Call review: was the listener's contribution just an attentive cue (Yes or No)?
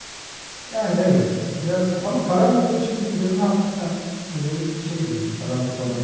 No